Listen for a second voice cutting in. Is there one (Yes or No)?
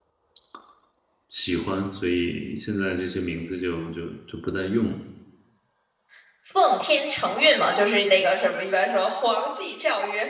No